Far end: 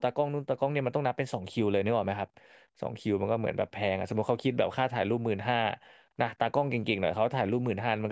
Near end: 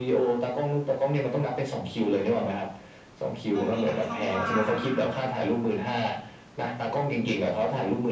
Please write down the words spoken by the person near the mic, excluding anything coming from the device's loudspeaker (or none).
มันมีแบบช่องว่างไง